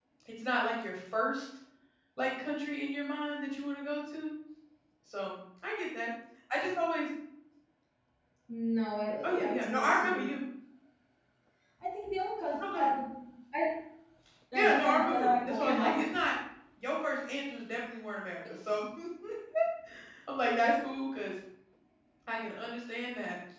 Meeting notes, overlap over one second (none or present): present